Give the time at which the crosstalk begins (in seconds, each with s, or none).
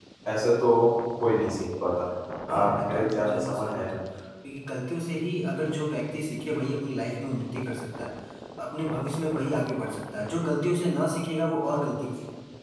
2.6 s